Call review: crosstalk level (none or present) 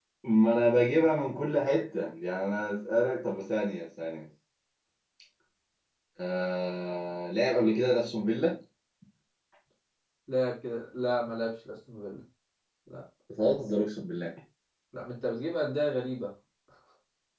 none